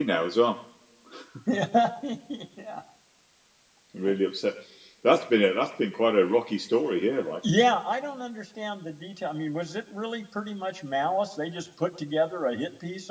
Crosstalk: none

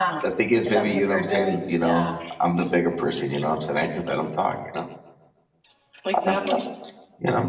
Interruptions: present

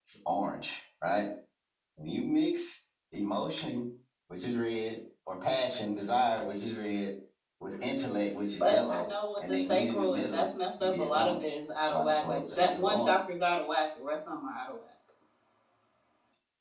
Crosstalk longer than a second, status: present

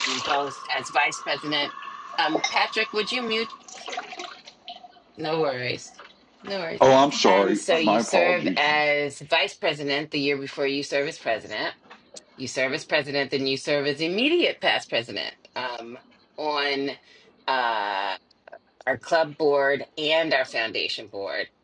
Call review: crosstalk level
present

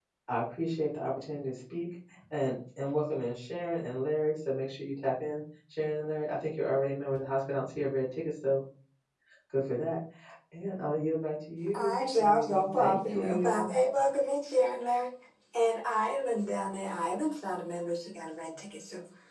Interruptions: present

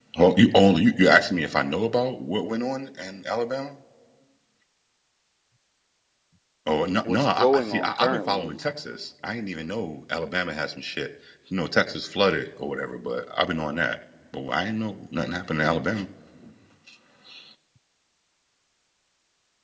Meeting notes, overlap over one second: present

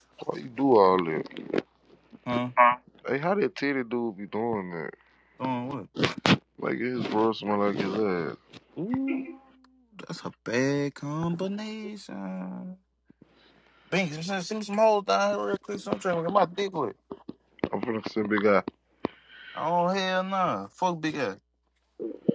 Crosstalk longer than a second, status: none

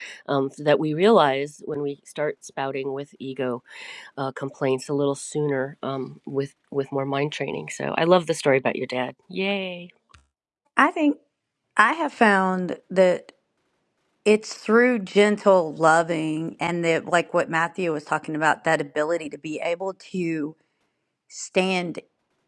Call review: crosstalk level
none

